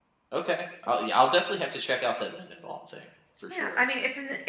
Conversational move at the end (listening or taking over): taking over